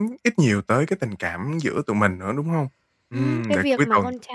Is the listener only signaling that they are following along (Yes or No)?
No